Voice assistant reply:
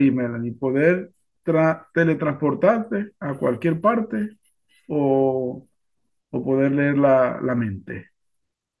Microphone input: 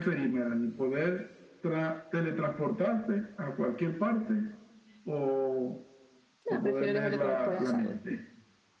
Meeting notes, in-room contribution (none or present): present